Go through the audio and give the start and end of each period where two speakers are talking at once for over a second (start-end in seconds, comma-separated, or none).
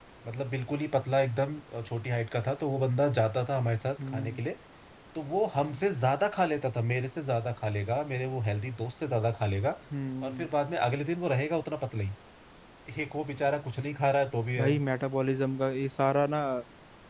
none